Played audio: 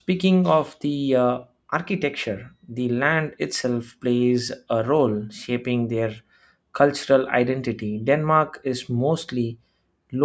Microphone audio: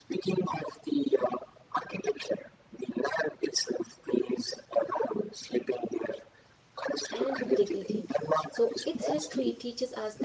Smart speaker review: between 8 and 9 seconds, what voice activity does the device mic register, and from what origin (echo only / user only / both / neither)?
both